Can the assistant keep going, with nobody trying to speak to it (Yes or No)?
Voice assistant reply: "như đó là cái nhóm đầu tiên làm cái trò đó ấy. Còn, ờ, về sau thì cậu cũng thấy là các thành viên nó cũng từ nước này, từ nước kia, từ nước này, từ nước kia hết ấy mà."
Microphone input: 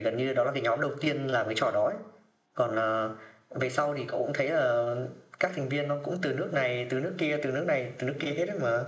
Yes